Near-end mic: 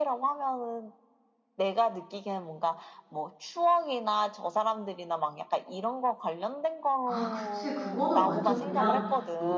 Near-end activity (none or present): present